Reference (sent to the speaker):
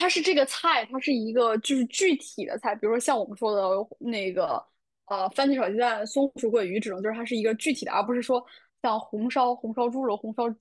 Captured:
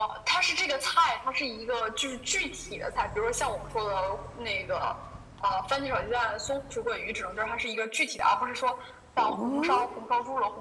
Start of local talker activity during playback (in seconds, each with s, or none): 9.1 s